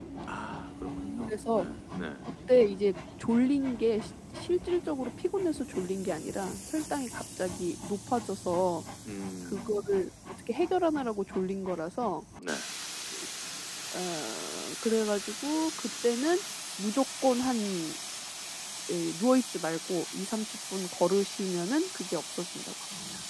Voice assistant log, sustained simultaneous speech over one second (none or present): none